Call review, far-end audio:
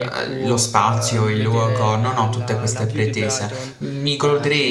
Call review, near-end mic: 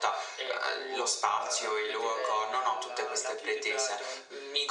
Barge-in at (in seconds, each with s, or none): none